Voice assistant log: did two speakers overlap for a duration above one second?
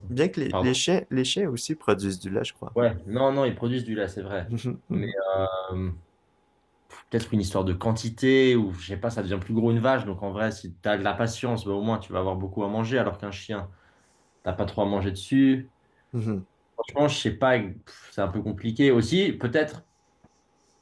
No

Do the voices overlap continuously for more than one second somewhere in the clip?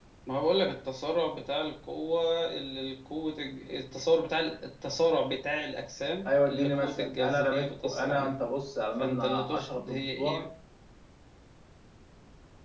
Yes, from 6.3 s

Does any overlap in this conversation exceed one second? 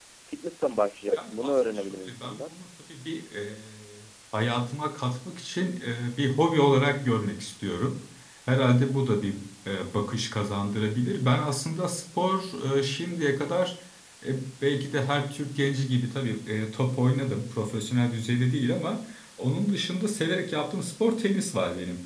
Yes, from 1.1 s

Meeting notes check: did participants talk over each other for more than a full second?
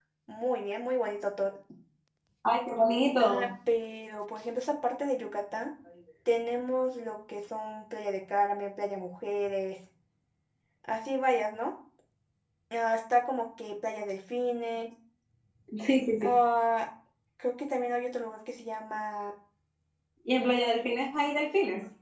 No

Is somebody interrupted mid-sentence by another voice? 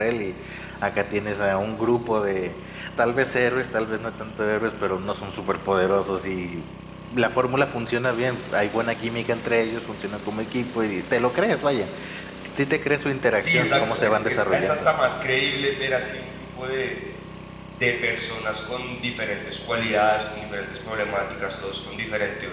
Yes, from 13.4 s

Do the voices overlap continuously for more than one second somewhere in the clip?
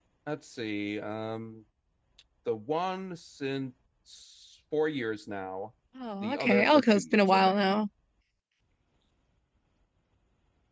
Yes, from 6.2 s

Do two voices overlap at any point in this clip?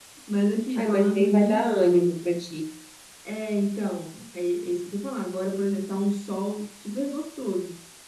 Yes, from 0.8 s

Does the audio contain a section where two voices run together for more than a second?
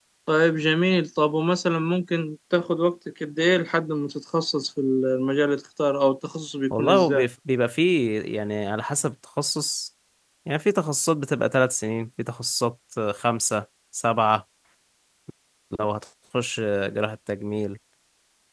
No

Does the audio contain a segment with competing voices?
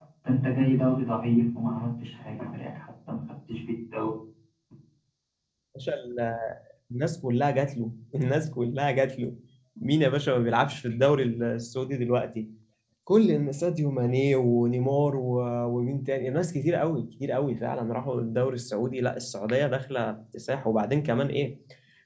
No

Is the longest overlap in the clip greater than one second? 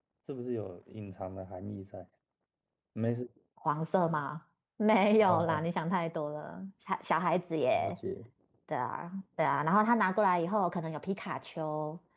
No

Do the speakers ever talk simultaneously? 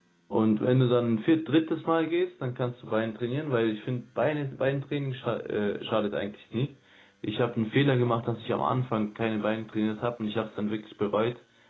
No

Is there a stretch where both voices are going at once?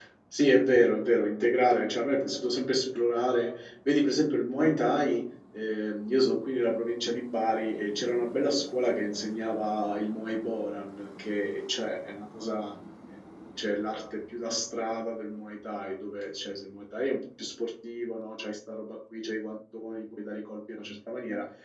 No

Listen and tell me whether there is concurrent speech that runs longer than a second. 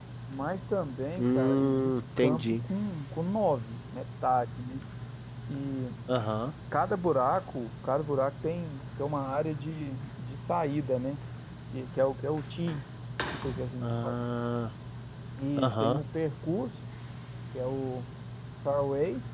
Yes, from 1.2 s

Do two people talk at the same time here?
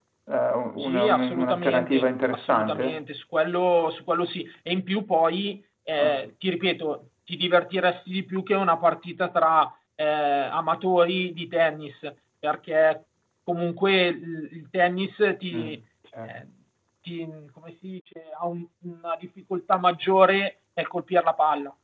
Yes, from 0.8 s

